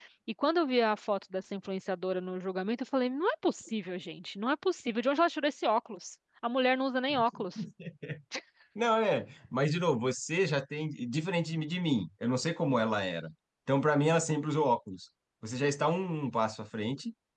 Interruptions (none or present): none